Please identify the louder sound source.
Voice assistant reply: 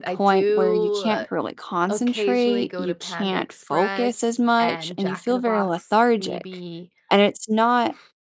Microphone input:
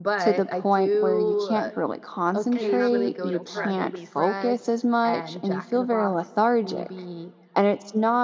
echo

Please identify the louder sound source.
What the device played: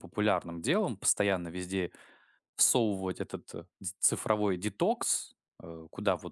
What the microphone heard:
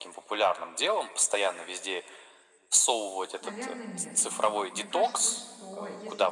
echo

